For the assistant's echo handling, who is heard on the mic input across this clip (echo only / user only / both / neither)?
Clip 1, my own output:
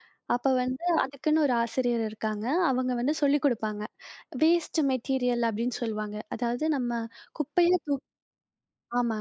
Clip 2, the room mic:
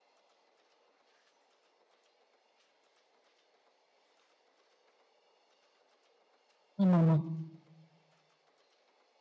user only